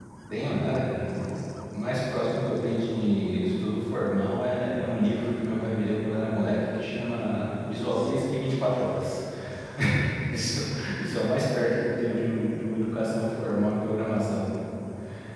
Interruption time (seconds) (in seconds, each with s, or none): none